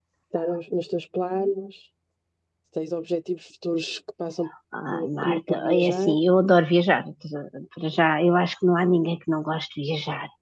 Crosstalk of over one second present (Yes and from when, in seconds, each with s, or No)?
Yes, from 4.9 s